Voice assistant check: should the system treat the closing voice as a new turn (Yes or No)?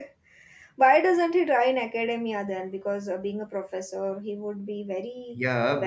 Yes